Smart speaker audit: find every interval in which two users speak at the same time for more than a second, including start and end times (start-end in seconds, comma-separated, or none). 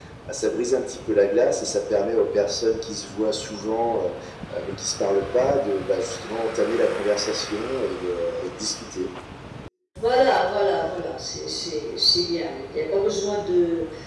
none